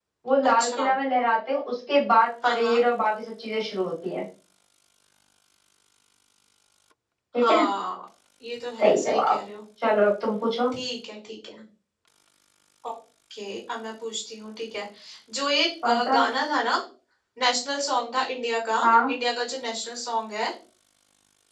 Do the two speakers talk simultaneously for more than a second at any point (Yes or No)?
No